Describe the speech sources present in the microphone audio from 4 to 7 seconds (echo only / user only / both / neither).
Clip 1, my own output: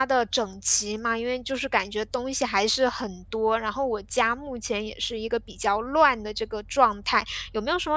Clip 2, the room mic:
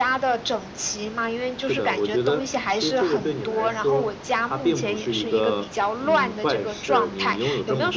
both